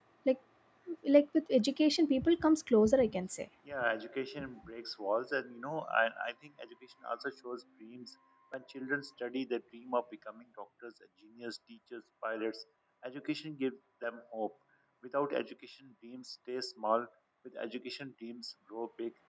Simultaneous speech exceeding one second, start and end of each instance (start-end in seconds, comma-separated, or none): none